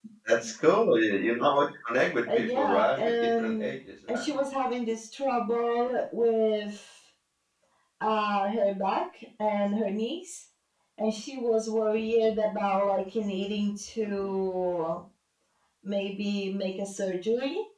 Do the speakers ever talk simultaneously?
Yes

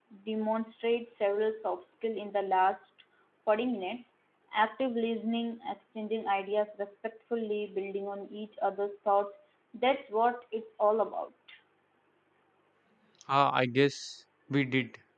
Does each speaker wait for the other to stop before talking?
Yes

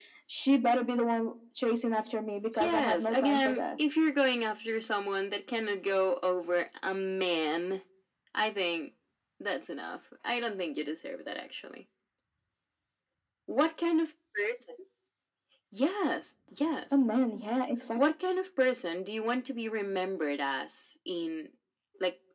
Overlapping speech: Yes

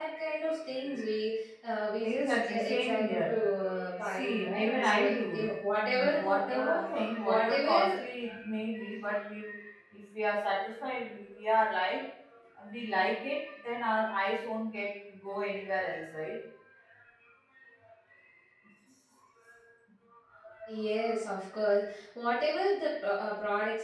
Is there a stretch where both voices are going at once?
Yes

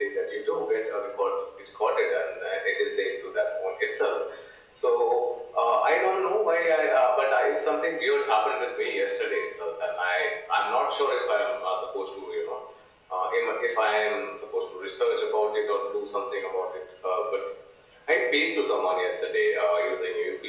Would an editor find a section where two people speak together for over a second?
No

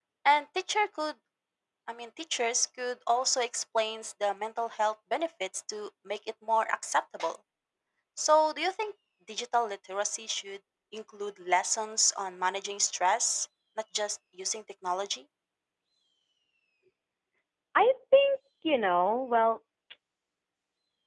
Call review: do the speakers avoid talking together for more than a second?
Yes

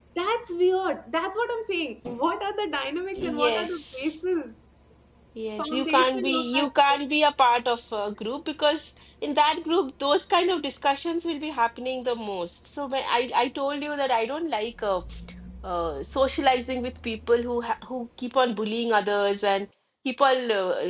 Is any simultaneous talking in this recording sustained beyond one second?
Yes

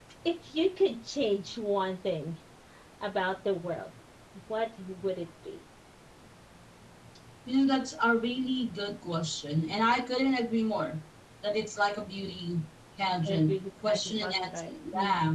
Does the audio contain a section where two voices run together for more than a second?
Yes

